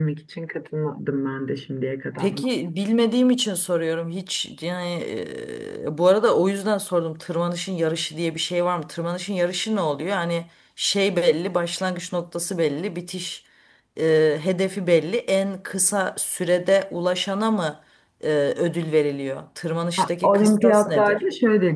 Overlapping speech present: Yes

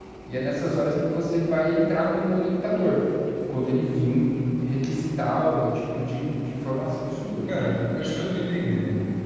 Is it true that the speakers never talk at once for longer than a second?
Yes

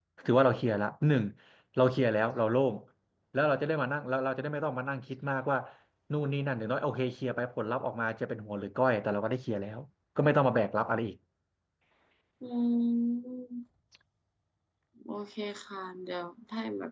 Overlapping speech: No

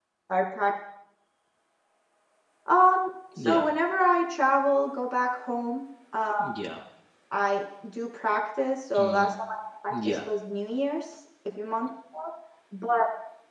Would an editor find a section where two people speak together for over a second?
No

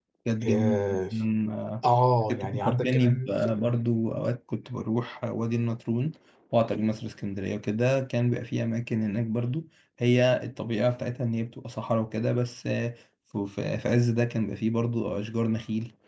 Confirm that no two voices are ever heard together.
No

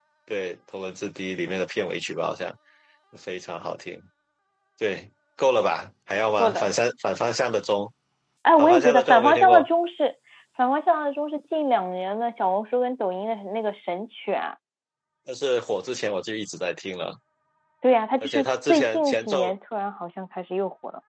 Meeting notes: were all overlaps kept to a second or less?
No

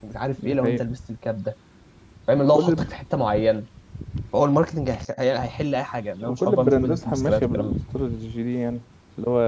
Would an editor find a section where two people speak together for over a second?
Yes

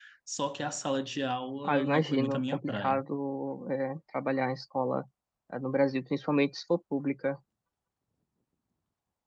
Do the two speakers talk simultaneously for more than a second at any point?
Yes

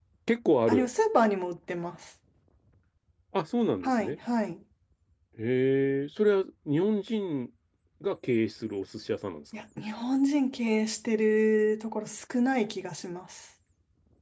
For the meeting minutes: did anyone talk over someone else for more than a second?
No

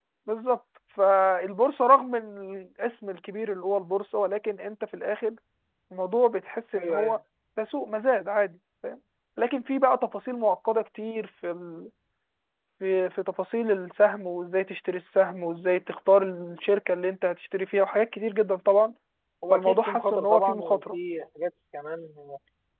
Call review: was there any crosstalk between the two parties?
Yes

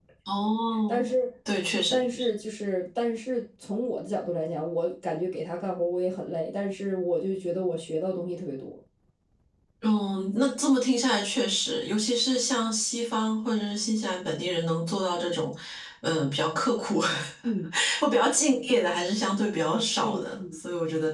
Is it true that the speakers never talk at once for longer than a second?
Yes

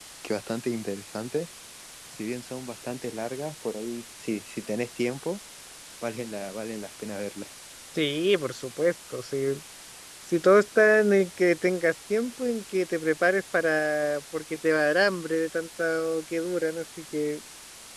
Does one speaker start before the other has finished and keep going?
No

